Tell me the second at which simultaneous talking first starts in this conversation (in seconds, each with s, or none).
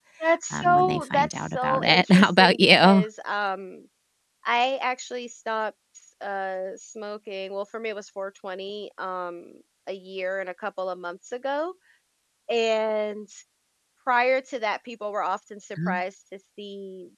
0.5 s